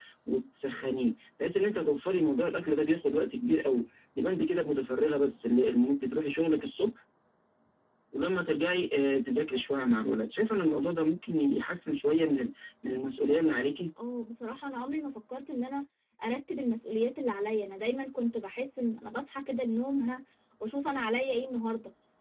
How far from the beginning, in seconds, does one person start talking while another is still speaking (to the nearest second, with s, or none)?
none